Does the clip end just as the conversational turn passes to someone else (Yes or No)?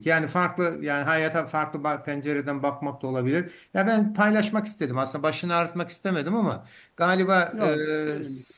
No